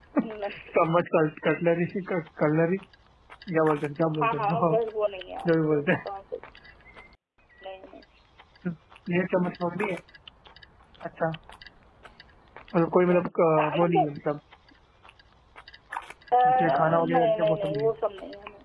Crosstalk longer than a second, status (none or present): present